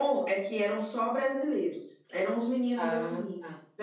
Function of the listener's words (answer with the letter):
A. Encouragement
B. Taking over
A